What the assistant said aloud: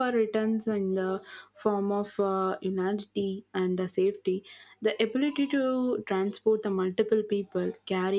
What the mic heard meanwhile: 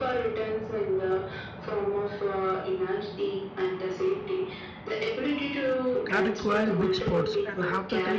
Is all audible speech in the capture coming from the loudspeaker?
No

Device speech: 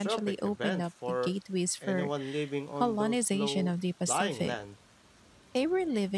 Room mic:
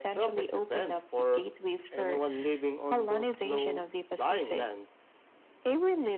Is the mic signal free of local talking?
Yes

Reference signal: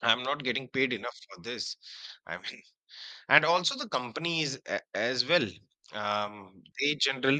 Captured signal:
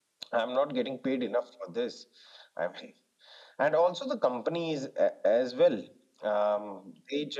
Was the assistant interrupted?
No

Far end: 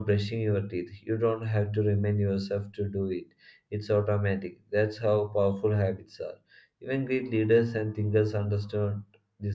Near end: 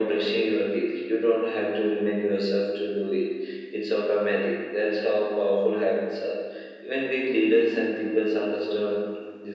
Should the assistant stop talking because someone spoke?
No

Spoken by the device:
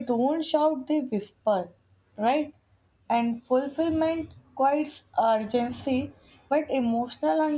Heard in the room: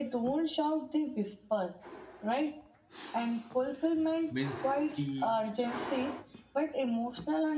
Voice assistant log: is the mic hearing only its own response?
No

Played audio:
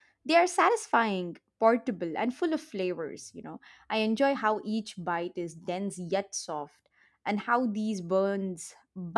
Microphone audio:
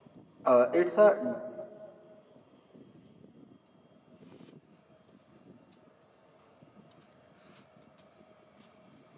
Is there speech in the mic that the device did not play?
Yes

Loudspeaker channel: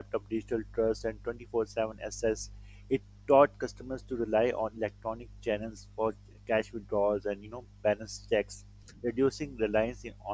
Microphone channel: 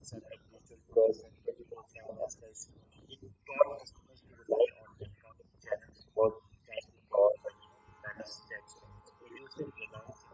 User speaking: No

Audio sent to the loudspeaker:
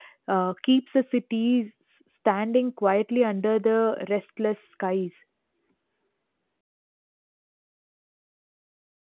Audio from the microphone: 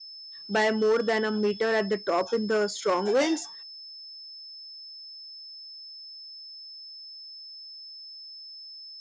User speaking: Yes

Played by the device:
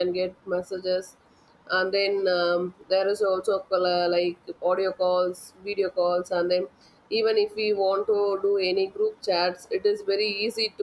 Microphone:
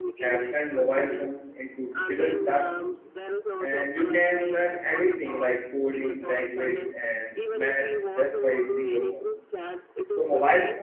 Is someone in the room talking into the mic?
Yes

